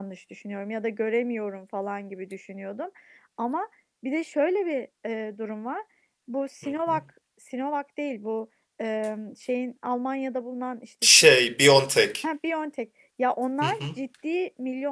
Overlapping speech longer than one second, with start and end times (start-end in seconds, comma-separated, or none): none